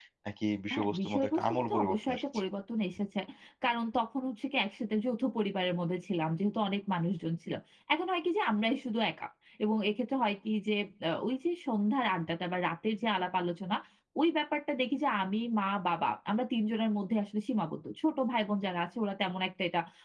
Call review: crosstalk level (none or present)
present